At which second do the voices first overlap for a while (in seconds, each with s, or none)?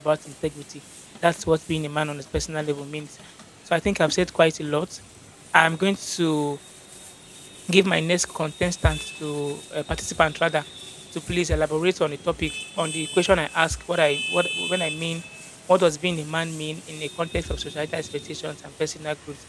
none